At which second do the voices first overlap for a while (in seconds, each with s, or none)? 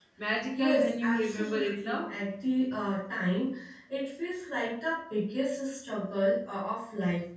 0.6 s